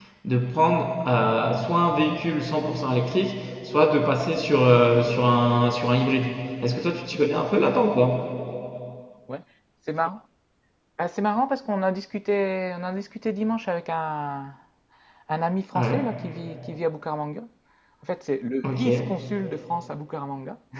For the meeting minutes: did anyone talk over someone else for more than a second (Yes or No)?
No